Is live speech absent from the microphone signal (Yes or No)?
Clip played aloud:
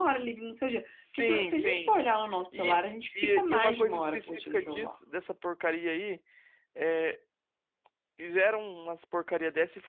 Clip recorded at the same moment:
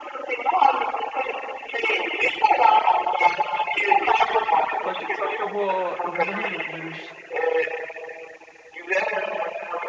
No